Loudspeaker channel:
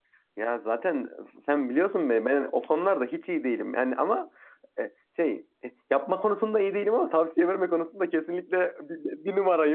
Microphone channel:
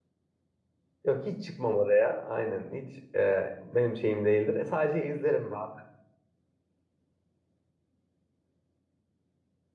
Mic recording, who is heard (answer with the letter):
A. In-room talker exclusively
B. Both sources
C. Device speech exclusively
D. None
A